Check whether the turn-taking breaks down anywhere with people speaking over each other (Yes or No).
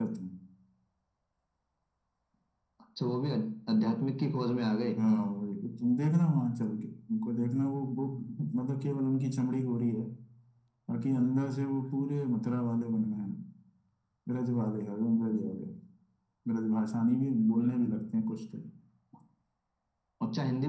No